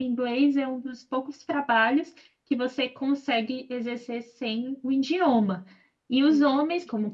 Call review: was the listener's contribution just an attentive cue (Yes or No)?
Yes